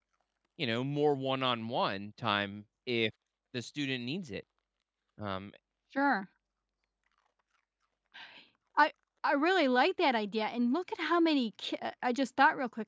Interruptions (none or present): none